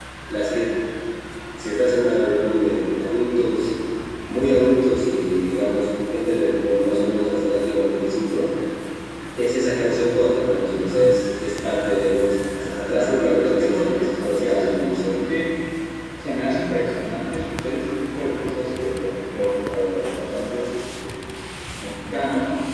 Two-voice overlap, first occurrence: 13 s

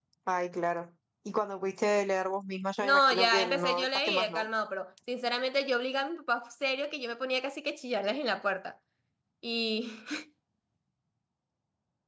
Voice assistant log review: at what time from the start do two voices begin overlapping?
3 s

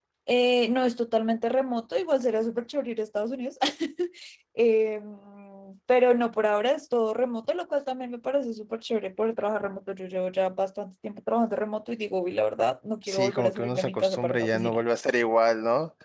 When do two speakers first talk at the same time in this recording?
13 s

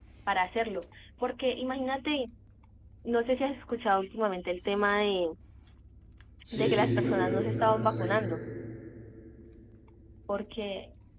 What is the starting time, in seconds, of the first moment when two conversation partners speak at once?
7 s

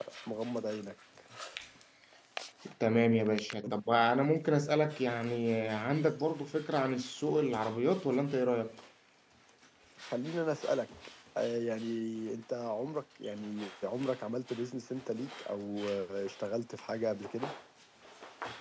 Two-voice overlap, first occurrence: none

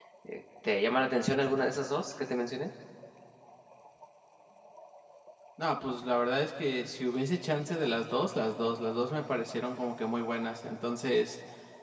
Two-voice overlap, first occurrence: none

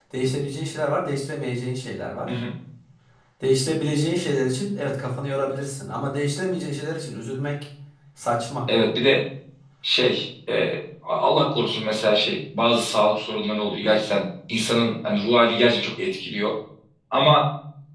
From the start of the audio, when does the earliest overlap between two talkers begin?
none

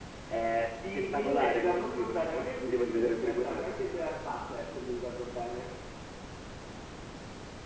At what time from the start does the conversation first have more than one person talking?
1 s

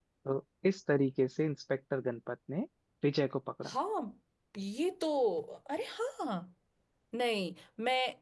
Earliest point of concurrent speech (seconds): none

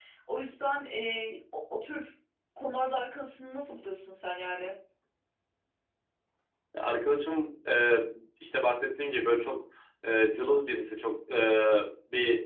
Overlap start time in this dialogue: none

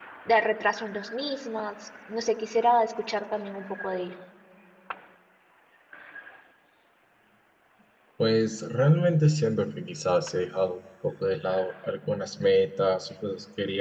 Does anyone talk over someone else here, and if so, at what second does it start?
none

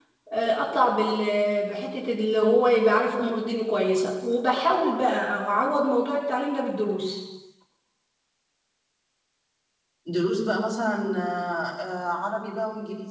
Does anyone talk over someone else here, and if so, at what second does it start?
none

